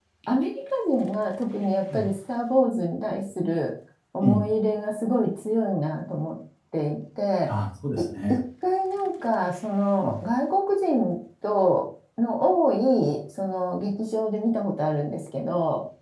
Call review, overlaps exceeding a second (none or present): none